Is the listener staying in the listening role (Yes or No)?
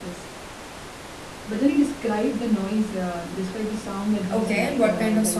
No